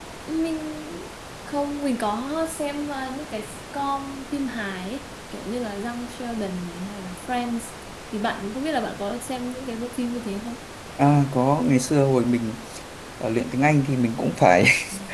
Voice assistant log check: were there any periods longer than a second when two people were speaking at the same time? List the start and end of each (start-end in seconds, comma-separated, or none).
none